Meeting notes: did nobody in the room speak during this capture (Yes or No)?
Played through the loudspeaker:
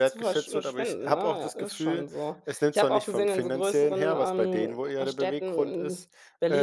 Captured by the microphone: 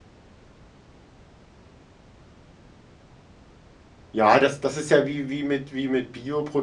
No